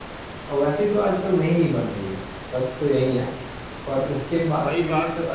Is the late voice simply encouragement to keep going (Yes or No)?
No